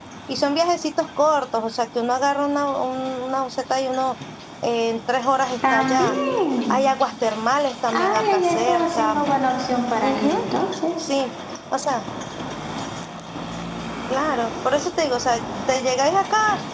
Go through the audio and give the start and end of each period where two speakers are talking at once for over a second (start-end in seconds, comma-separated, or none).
7.9-9.2